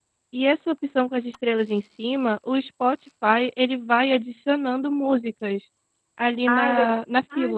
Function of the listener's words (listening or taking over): taking over